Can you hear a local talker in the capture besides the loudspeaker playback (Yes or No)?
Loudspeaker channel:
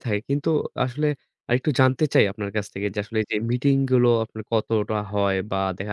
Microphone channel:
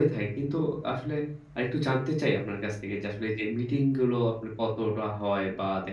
No